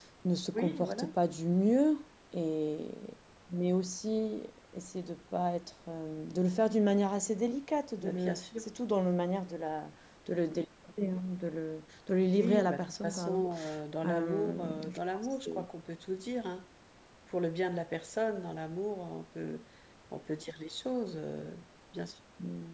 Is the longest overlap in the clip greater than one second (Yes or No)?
Yes